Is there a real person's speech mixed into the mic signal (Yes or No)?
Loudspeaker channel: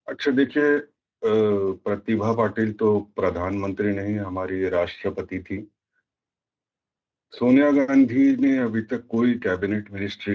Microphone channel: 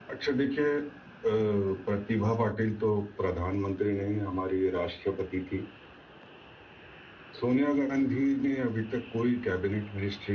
No